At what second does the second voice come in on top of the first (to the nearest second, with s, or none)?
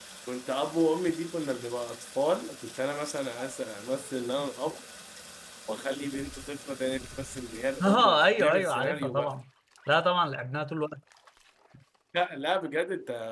8 s